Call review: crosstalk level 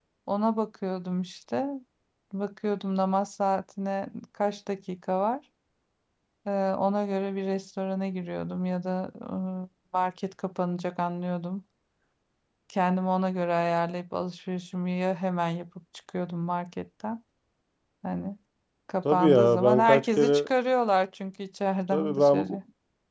present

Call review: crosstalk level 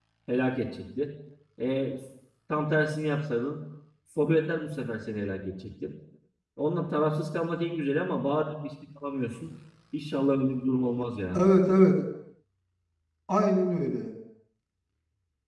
none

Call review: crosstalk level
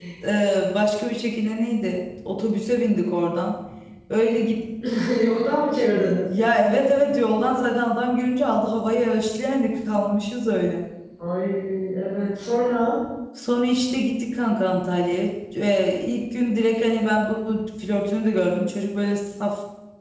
none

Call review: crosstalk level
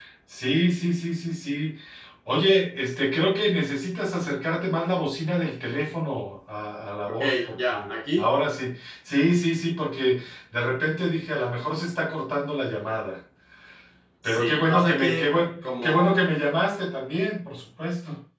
present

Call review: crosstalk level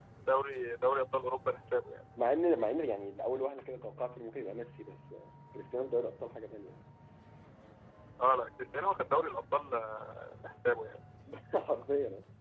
none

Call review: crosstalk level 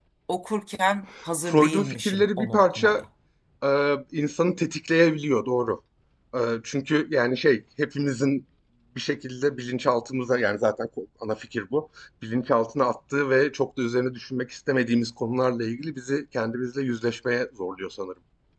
present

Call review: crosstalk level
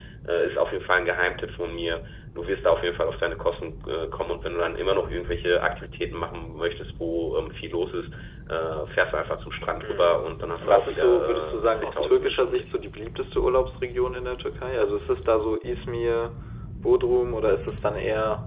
present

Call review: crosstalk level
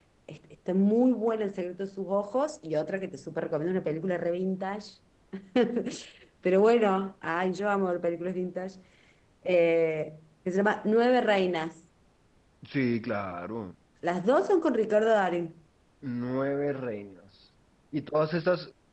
none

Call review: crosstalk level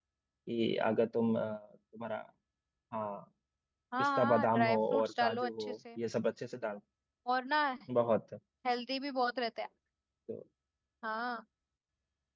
present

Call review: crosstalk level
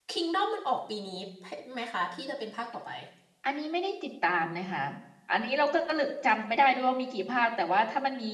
none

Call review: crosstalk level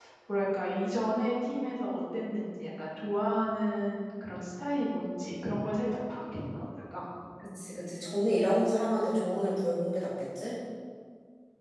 none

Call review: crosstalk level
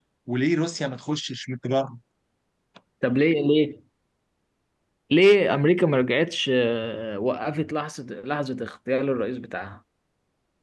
none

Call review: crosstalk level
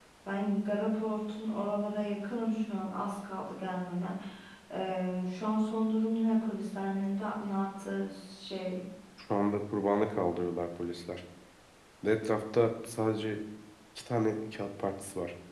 none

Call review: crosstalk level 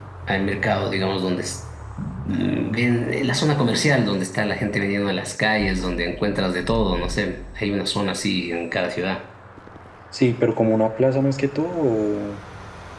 none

